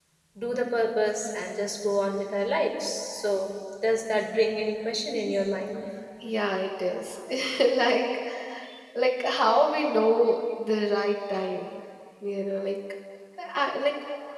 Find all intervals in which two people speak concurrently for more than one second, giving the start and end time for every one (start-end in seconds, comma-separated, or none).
none